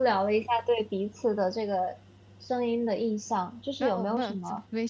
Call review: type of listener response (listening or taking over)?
taking over